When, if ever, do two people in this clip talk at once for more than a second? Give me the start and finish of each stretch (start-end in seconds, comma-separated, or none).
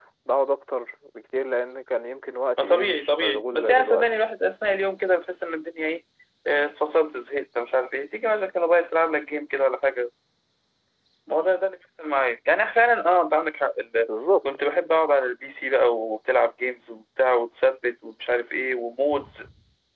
2.6-4.2